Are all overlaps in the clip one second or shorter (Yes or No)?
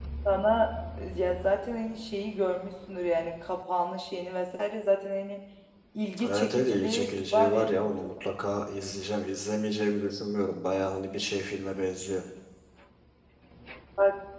No